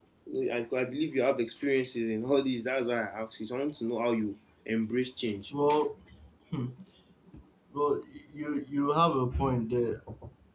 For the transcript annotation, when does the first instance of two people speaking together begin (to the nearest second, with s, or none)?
none